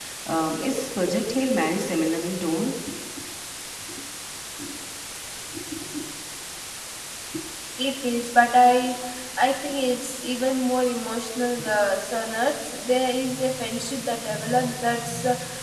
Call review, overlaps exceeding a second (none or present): none